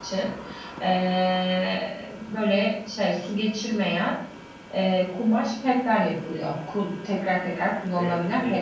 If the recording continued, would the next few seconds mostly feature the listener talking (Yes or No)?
Yes